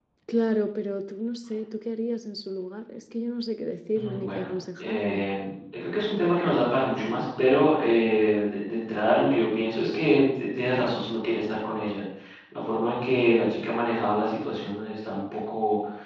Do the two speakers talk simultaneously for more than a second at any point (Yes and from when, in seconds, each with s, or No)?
Yes, from 3.9 s